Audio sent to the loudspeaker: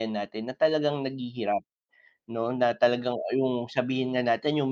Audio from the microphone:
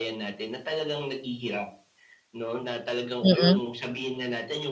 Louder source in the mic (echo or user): user